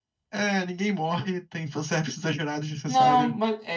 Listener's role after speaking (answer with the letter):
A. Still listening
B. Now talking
B